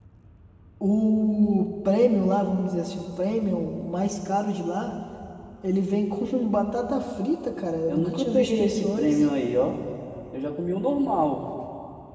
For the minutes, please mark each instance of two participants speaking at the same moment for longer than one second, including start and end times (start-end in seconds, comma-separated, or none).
7.9-9.2